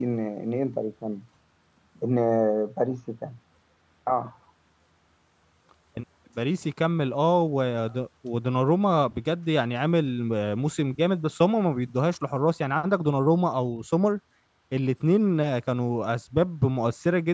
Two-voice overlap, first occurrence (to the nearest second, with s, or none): none